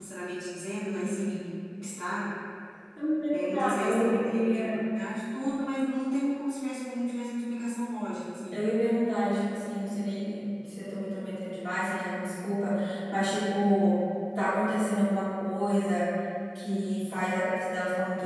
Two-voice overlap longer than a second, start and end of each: 3.3-4.8

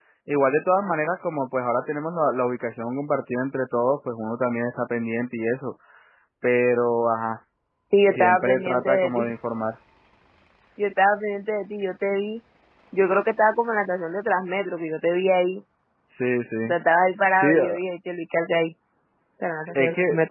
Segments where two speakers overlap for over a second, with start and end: 8.1-9.3

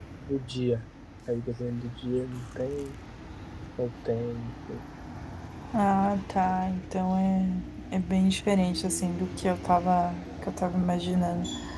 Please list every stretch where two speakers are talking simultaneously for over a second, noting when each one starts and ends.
none

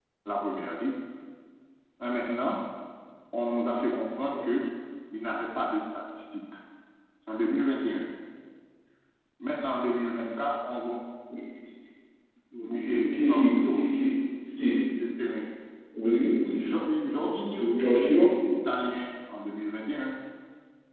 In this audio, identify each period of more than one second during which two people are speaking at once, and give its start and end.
12.6-13.8

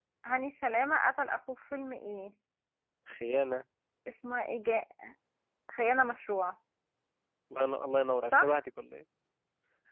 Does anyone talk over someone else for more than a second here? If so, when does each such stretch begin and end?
none

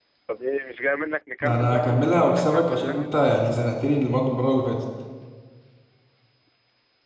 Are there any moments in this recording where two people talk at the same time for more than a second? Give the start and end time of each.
1.4-3.1

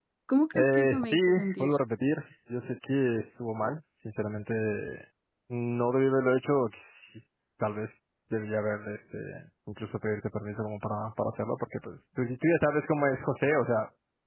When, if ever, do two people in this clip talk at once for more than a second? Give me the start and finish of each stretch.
0.6-1.8

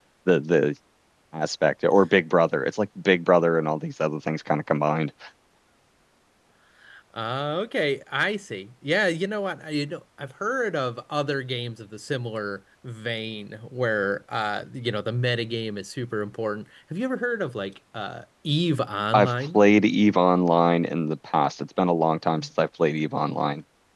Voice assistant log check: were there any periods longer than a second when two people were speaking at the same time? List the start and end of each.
none

